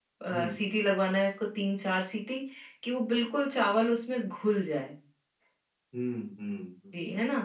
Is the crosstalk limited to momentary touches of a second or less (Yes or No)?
Yes